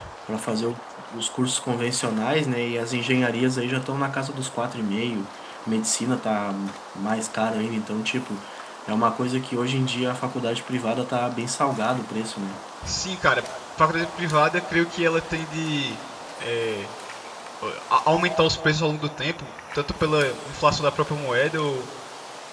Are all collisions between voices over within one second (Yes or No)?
Yes